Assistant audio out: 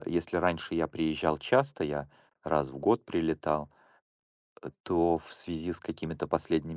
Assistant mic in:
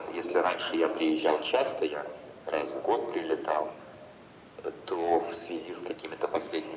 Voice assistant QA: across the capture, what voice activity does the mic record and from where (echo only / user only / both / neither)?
echo only